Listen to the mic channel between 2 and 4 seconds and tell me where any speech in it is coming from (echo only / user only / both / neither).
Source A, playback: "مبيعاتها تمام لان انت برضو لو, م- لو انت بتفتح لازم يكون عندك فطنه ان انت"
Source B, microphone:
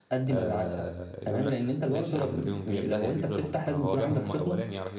both